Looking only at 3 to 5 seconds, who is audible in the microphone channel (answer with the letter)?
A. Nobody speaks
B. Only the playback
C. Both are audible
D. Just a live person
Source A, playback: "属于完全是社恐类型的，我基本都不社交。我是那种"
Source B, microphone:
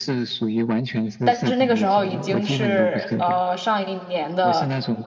C